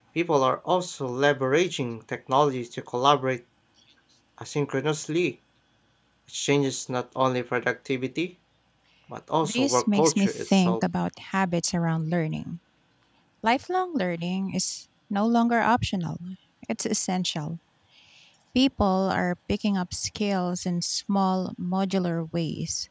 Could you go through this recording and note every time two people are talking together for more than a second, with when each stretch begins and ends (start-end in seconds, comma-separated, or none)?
9.4-10.8